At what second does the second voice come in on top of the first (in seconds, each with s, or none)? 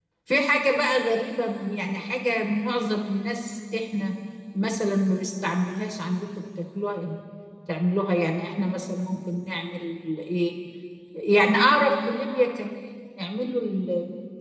none